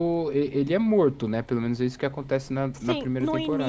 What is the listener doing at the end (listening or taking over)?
taking over